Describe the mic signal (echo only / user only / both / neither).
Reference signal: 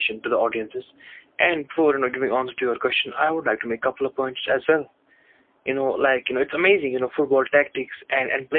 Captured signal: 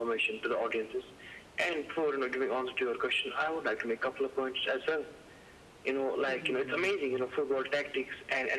both